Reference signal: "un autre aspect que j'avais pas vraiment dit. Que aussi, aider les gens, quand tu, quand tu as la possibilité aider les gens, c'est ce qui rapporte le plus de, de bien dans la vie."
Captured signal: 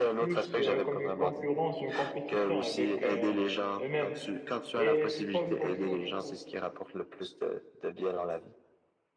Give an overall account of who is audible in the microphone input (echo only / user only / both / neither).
both